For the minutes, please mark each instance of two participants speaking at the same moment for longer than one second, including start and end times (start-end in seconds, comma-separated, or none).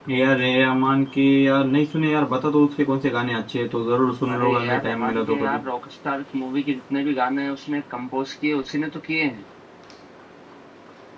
4.3-5.6